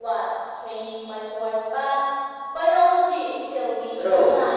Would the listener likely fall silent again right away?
No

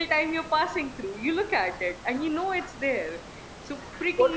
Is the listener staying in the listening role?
No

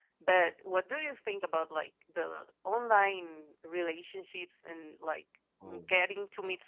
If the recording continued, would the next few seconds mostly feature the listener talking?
No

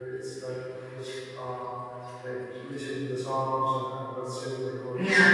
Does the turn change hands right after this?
Yes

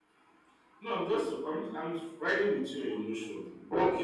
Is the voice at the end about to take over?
Yes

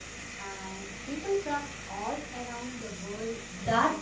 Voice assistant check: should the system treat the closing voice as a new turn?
Yes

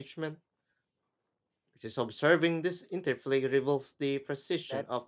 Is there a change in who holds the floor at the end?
Yes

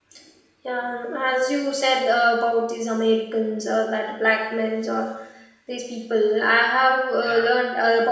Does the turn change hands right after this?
No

